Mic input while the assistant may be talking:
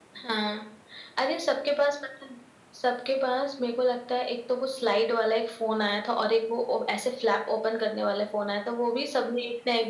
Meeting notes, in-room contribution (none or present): none